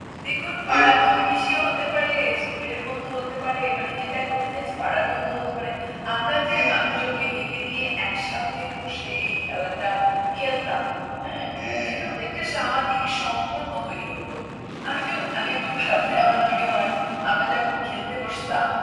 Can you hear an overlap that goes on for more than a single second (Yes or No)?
No